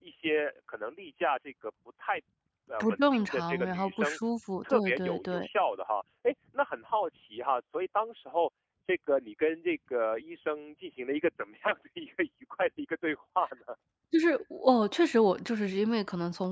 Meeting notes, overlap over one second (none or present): present